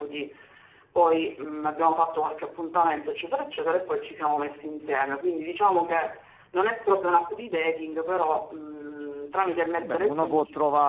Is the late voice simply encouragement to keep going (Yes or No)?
No